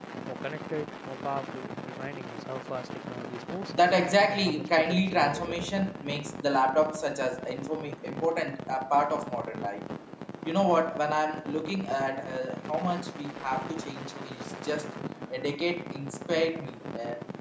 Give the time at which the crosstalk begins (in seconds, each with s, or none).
4.3 s